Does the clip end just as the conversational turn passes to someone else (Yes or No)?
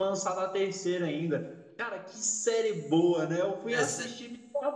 No